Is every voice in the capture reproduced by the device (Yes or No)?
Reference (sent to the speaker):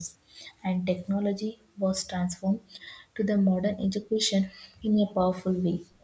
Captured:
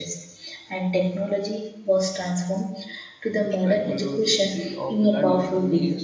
No